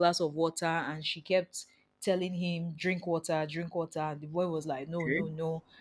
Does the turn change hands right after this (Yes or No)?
No